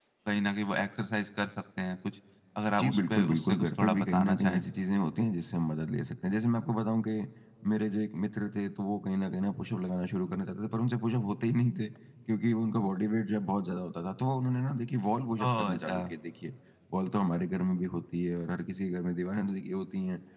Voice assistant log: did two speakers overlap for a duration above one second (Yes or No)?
Yes